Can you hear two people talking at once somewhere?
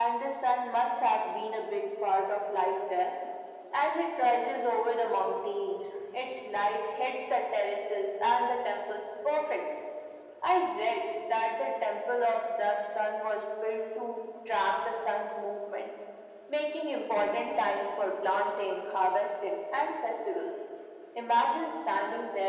No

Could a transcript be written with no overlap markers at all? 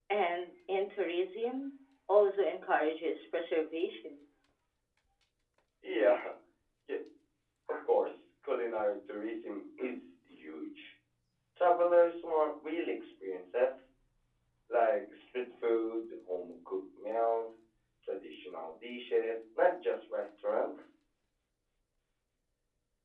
Yes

